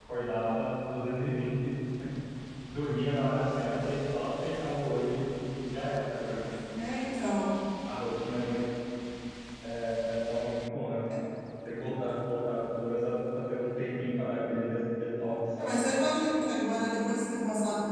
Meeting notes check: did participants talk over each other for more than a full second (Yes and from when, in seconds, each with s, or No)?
No